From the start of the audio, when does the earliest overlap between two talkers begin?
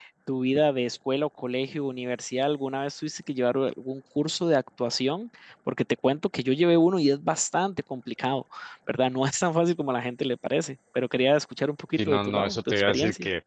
12.0 s

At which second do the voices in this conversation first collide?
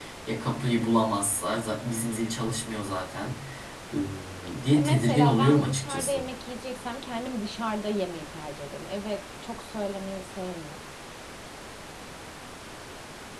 4.7 s

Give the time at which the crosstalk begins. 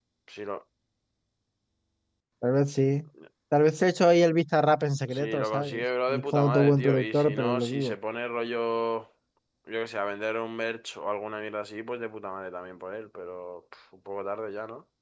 5.1 s

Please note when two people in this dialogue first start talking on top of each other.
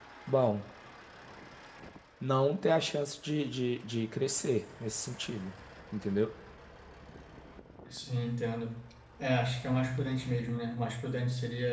none

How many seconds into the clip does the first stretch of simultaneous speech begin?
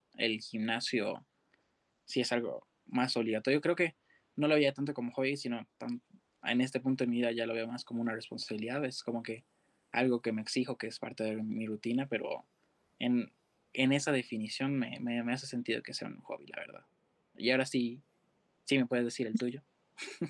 none

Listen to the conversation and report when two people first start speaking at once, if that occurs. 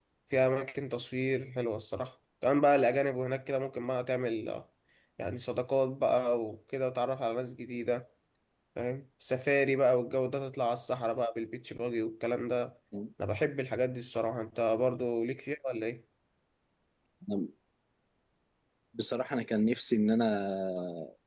none

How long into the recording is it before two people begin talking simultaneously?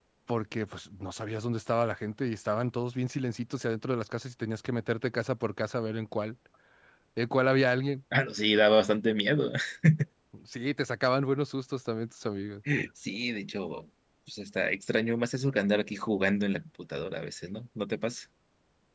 none

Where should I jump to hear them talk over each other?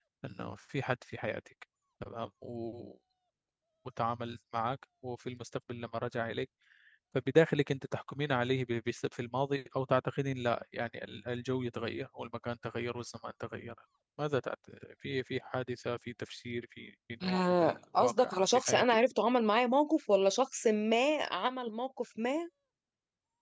17.2 s

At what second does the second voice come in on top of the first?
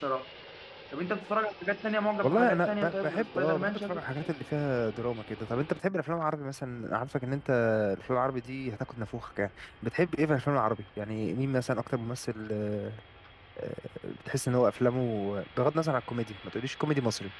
2.2 s

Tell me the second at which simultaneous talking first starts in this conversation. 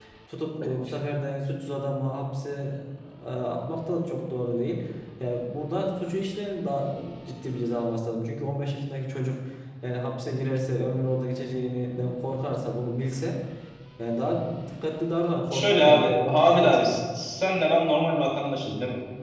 15.5 s

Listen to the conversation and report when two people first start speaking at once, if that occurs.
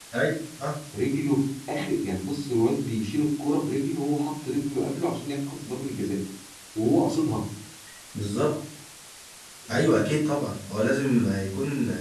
none

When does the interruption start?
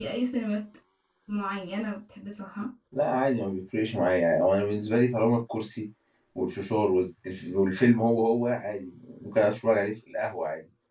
none

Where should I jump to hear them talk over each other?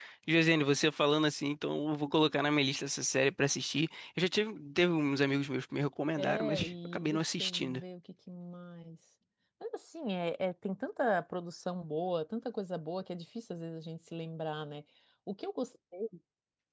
6.2 s

